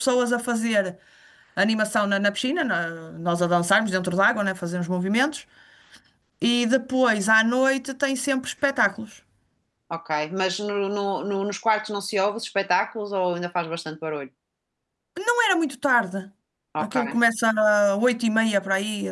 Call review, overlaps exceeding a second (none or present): none